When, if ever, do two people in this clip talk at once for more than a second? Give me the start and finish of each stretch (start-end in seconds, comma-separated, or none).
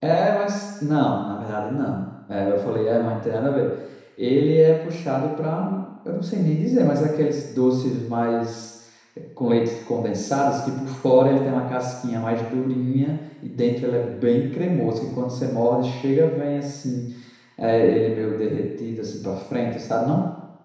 none